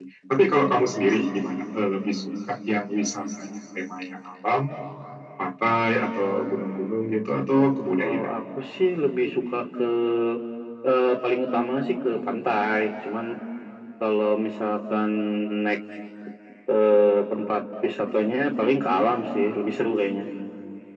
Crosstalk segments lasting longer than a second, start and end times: none

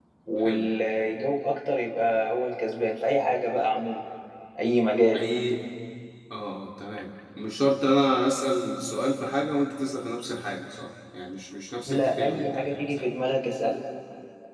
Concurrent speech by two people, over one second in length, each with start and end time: 11.8-13.1

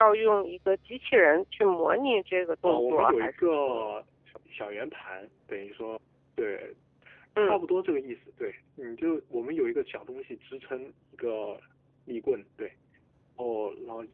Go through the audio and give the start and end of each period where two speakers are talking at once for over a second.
2.6-3.9

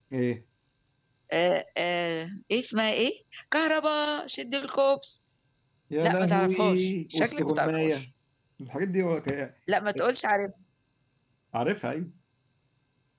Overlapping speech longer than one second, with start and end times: 6.0-8.1

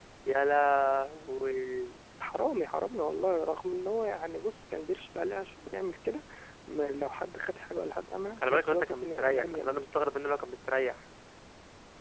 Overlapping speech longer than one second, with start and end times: 8.4-10.1

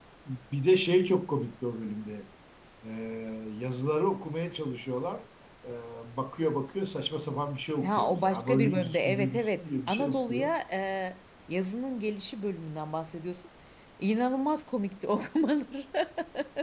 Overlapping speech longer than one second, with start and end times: 7.8-10.5

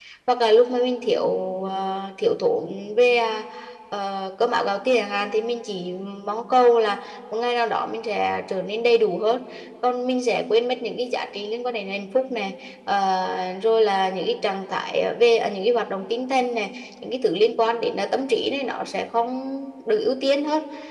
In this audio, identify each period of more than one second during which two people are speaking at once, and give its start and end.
none

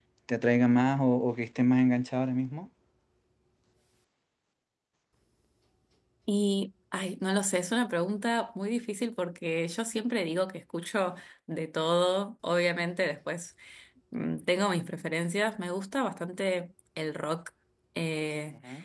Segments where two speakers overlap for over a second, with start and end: none

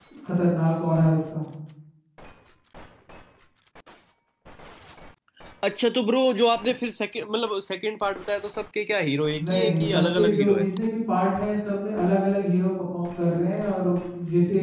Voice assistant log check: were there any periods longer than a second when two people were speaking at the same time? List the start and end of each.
9.4-10.7

